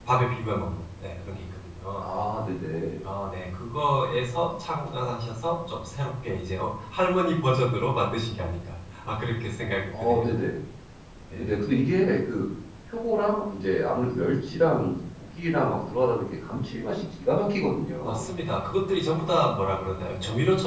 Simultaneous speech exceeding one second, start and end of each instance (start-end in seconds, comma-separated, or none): none